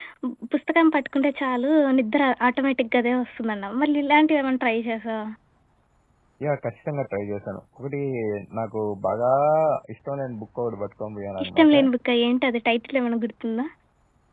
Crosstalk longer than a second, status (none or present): none